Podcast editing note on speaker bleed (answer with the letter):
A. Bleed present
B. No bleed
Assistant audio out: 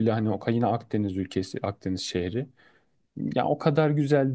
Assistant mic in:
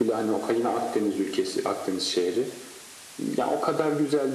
A